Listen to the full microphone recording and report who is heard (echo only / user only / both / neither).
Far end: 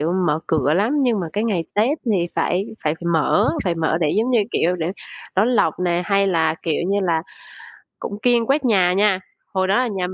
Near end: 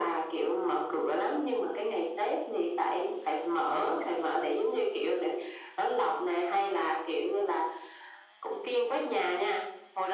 echo only